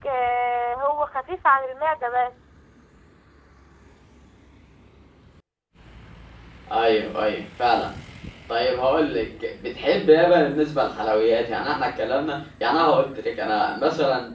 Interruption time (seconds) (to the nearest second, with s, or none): none